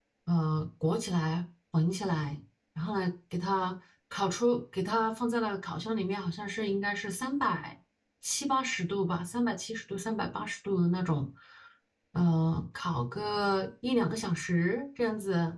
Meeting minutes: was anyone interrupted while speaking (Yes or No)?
No